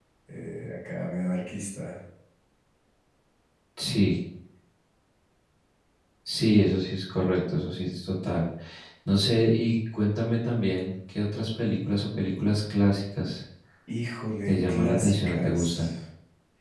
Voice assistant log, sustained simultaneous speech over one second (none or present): present